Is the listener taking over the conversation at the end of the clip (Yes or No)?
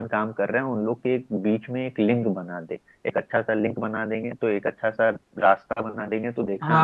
Yes